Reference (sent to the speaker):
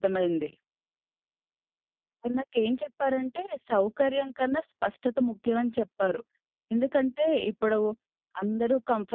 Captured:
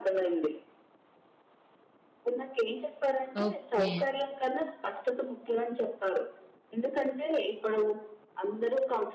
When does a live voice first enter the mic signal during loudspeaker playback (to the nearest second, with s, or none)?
3 s